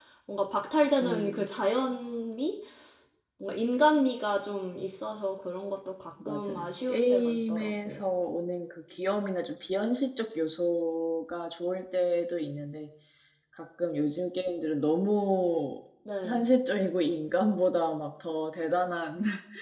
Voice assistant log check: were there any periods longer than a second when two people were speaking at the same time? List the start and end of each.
6.2-8.0

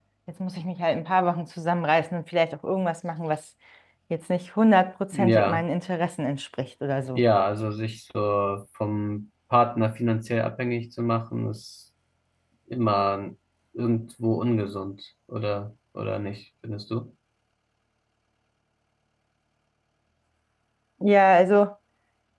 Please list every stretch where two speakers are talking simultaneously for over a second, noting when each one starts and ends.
none

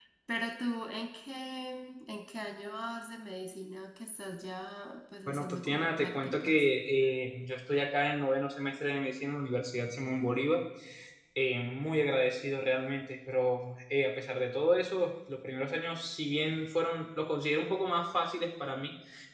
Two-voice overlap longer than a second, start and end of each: 5.3-6.7

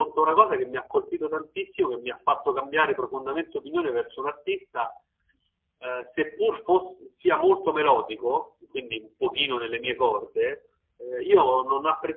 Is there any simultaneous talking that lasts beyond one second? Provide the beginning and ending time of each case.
none

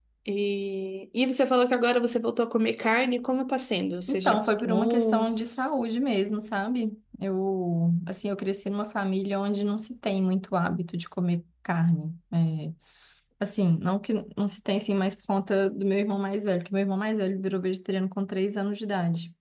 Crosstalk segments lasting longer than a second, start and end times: 4.1-5.3

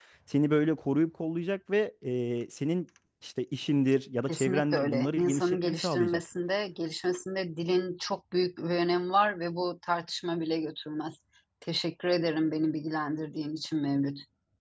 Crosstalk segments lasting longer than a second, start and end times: 4.3-6.2

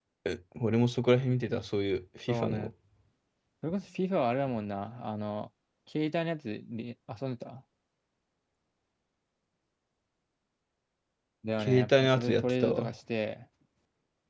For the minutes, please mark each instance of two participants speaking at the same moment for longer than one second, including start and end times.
11.6-12.9

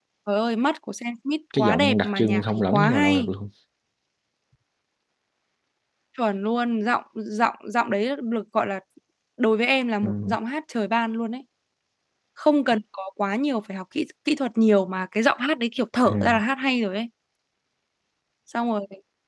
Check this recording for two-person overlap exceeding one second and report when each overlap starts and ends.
1.6-3.3

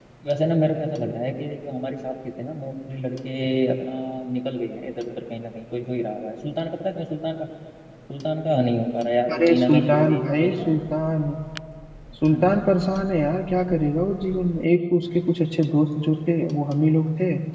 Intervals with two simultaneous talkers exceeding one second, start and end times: 9.3-10.8

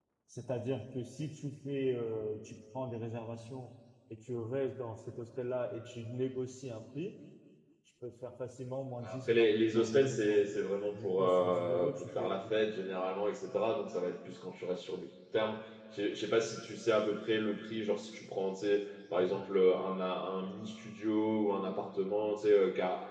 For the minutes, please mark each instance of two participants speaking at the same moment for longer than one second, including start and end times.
9.0-10.4, 11.0-12.2

